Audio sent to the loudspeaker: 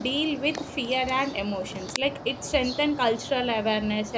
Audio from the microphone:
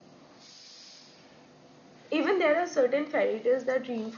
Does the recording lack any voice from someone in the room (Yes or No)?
No